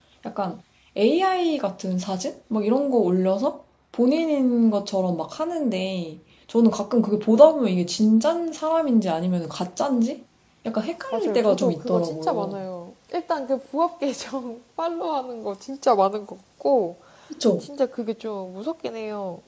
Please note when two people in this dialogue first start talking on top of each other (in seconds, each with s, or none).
11.1 s